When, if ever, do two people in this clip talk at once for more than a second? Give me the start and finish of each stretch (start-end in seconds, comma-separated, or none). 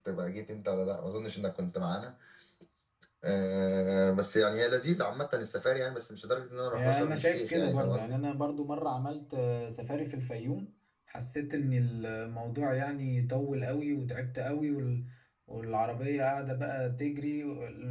6.7-8.2